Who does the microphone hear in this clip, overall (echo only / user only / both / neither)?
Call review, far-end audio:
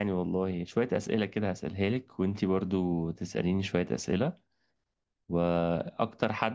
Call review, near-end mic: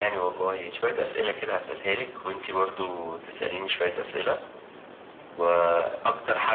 echo only